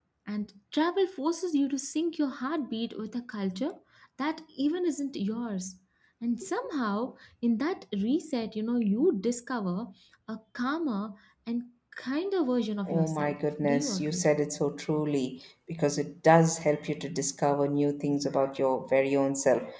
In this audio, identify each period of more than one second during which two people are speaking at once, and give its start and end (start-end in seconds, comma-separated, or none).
12.9-14.2